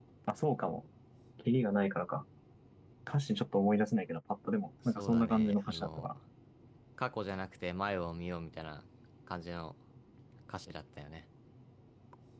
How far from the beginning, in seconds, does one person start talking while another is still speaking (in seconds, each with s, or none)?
4.9 s